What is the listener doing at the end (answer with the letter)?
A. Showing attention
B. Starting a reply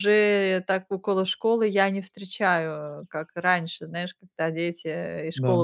A